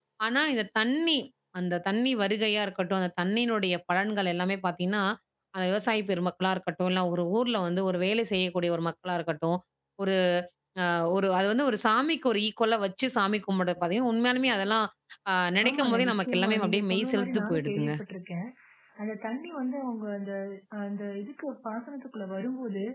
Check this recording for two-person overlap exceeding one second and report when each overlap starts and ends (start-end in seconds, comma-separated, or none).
15.7-17.9